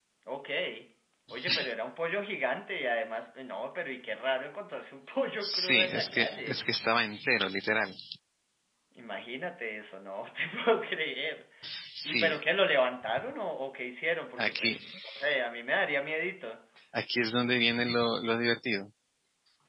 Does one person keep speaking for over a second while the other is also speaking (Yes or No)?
Yes